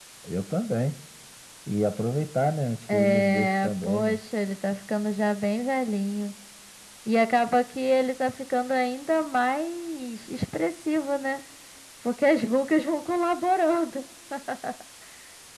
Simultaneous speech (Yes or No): Yes